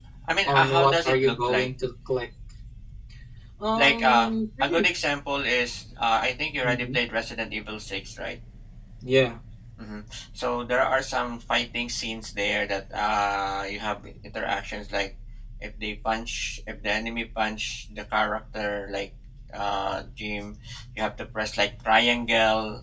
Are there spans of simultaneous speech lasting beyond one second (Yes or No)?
Yes